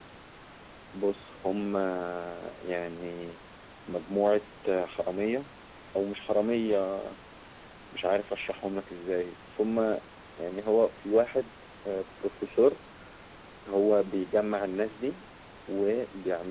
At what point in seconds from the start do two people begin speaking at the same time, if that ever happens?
none

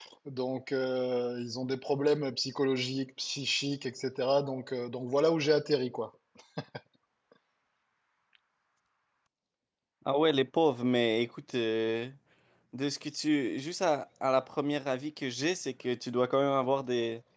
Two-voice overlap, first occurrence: none

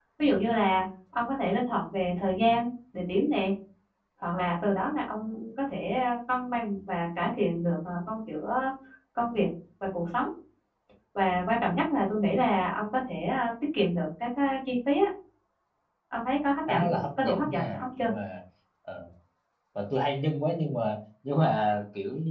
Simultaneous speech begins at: 16.7 s

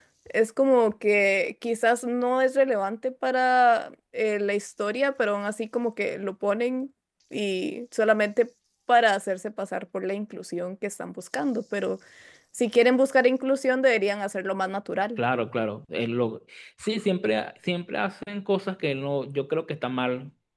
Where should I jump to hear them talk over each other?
none

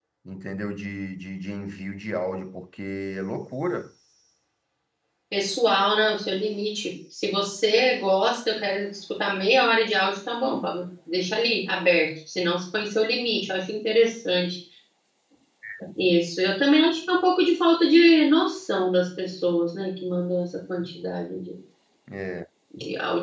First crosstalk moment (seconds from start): none

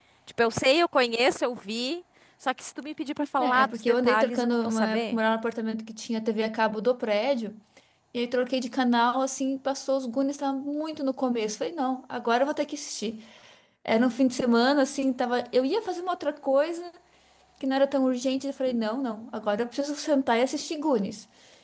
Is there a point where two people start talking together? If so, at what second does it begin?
3.4 s

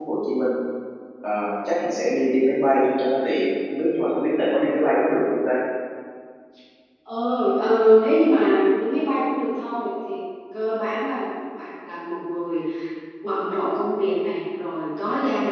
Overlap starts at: none

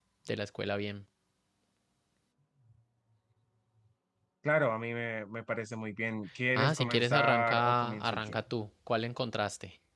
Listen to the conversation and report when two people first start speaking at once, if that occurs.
6.6 s

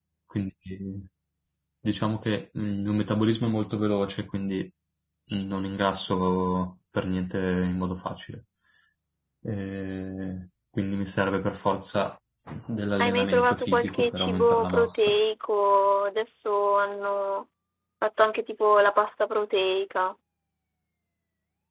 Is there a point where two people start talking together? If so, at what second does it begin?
13.0 s

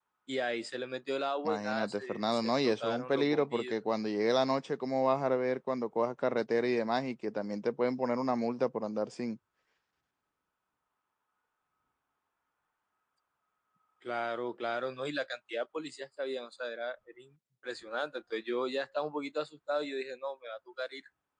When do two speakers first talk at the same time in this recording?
1.4 s

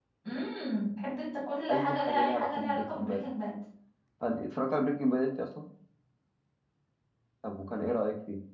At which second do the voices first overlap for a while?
1.7 s

